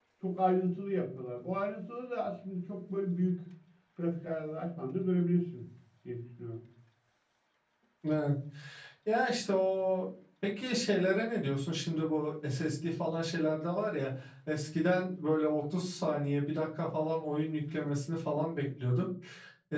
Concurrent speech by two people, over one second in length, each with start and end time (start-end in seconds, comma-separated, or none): none